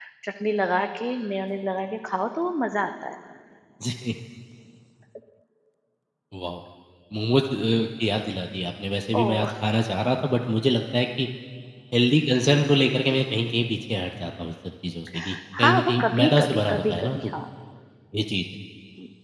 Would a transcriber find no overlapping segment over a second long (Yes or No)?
No